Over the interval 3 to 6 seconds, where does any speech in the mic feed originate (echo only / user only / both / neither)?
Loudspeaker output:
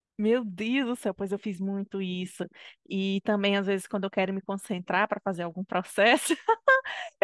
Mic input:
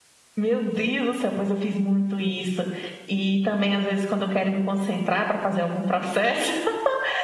echo only